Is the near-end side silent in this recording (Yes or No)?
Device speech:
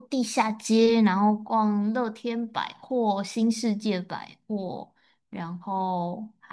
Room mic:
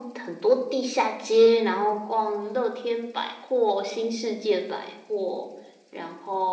Yes